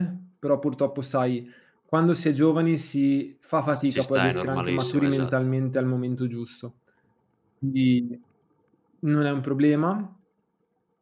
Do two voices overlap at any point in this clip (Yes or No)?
Yes